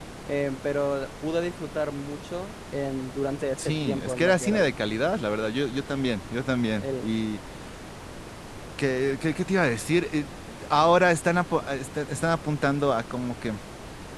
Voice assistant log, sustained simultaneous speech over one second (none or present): present